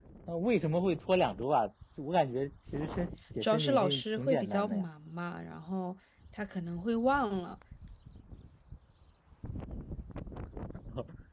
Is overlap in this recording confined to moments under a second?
No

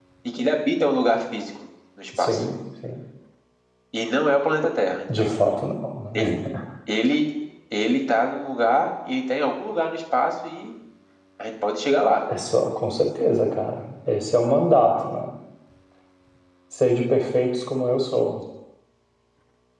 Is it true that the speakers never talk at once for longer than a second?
Yes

